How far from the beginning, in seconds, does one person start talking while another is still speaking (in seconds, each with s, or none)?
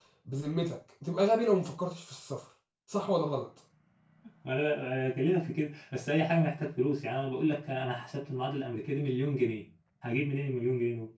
none